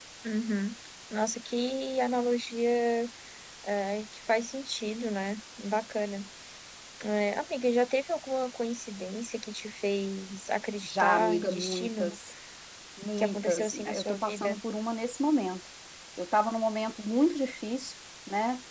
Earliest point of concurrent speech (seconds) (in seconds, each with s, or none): 10.8 s